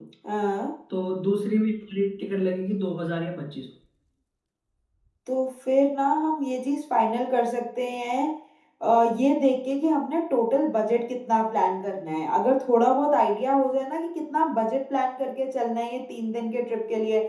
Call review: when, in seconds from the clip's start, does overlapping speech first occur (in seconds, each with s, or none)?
none